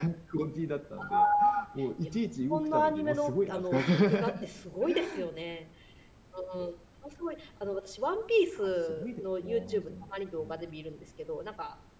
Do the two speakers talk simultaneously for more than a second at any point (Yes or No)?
Yes